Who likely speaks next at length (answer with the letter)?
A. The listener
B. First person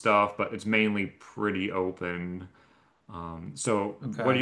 B